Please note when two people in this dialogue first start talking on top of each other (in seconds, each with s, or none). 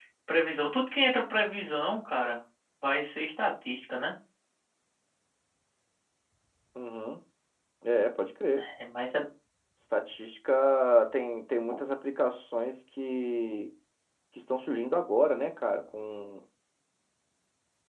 none